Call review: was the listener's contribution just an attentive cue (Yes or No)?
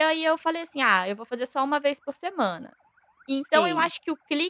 Yes